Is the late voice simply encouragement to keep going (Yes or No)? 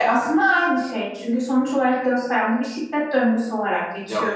No